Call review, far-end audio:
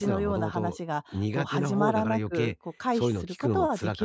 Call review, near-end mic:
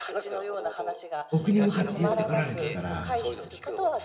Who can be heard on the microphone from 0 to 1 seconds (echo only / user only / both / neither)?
echo only